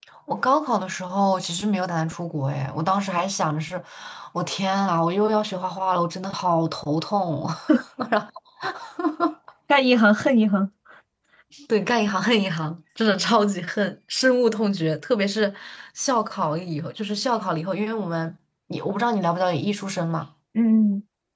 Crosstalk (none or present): none